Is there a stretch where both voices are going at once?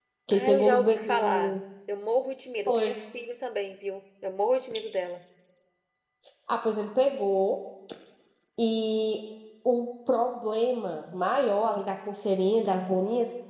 Yes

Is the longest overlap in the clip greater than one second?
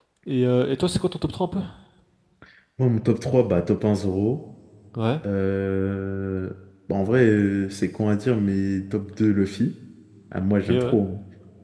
No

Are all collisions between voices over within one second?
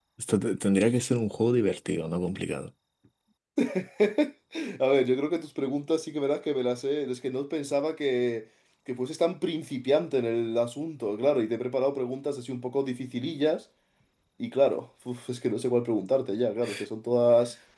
Yes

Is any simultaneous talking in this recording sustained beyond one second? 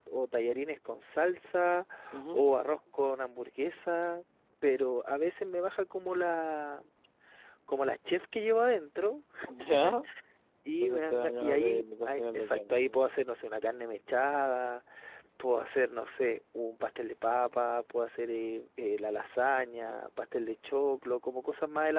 Yes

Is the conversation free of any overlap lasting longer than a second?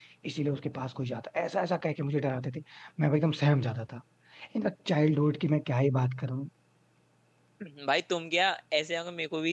Yes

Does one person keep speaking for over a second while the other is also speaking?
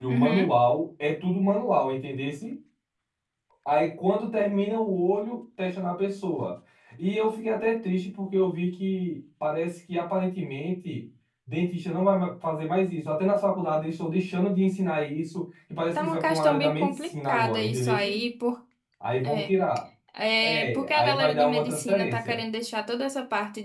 Yes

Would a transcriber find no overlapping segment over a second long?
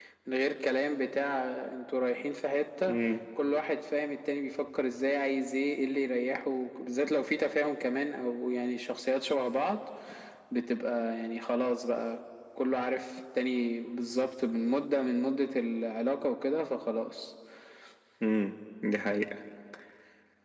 Yes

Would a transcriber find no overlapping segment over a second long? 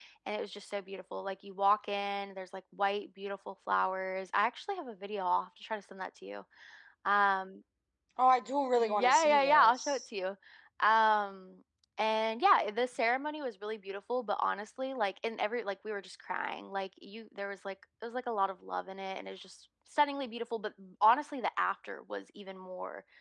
No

